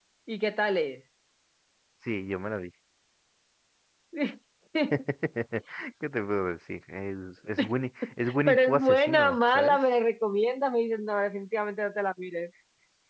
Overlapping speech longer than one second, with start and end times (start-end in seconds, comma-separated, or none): 8.5-9.8